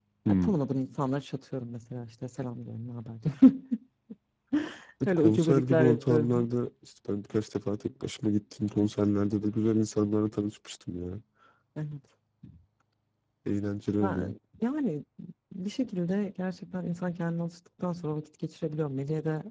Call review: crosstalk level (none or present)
present